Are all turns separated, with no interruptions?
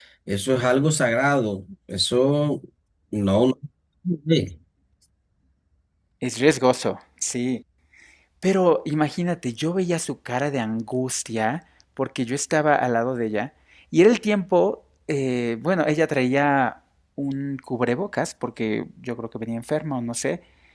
Yes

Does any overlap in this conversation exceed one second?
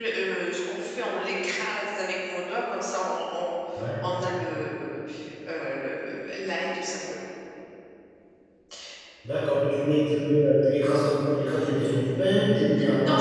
No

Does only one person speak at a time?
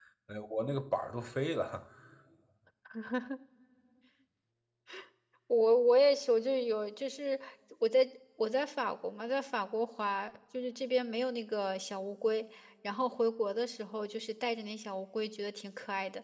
Yes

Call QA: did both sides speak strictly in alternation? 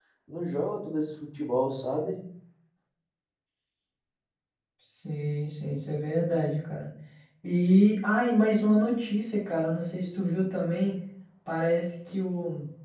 Yes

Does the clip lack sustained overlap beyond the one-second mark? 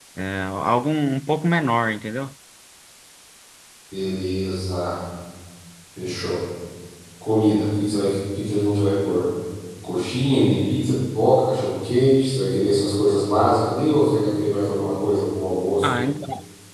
Yes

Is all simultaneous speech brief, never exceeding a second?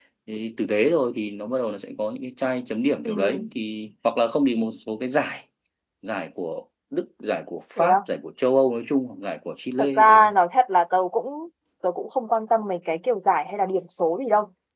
Yes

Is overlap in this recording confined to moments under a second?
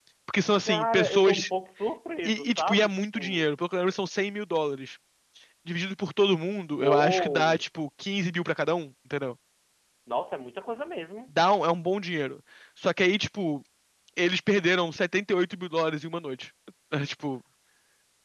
No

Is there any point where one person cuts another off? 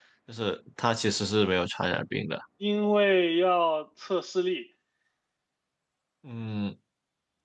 No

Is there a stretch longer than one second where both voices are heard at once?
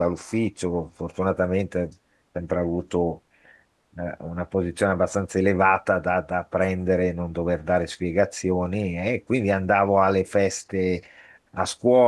No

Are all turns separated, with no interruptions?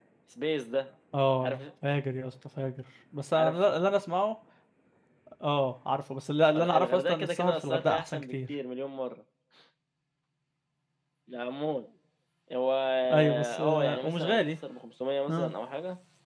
No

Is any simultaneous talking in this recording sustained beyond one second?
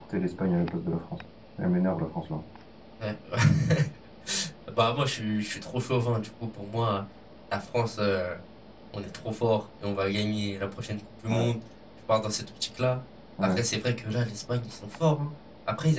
No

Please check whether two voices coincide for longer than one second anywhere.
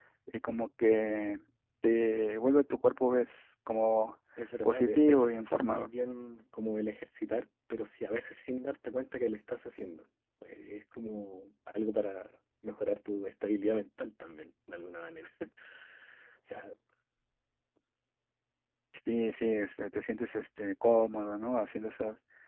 Yes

